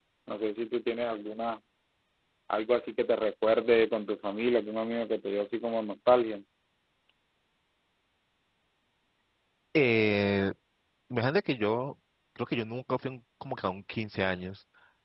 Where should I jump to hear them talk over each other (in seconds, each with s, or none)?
none